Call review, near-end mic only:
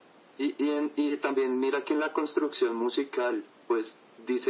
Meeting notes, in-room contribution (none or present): none